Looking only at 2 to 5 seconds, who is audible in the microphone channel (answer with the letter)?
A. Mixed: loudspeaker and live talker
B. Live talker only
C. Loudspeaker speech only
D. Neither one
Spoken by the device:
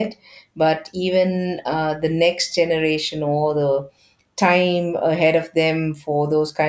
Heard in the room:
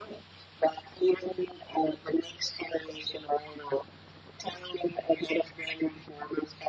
C